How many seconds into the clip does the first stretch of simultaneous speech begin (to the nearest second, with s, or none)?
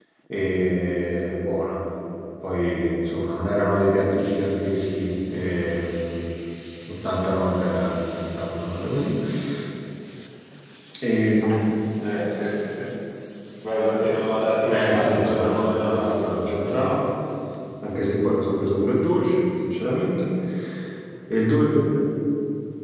15 s